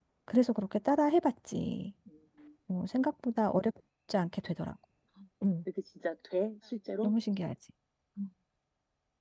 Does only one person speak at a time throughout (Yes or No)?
Yes